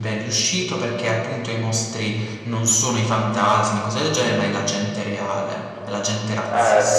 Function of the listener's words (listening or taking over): taking over